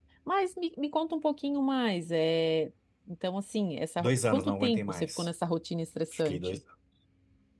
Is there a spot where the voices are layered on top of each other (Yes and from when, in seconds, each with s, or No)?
Yes, from 4.0 s